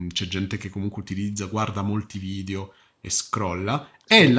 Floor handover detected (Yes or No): No